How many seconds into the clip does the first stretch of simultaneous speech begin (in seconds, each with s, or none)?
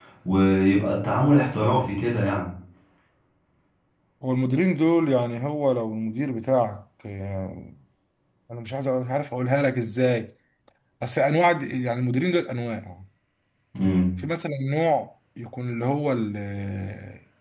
none